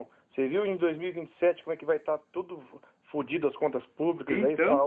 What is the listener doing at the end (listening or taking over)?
listening